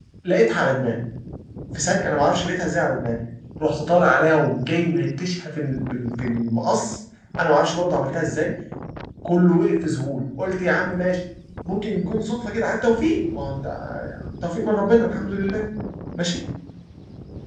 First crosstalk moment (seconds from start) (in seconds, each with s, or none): none